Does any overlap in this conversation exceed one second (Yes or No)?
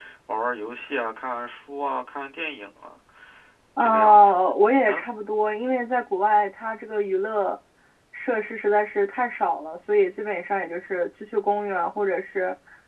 Yes